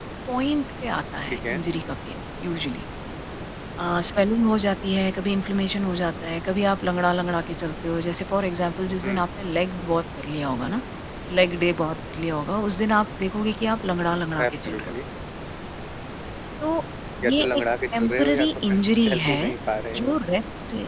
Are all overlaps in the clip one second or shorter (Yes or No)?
No